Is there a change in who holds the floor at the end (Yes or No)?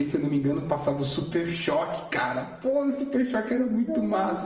Yes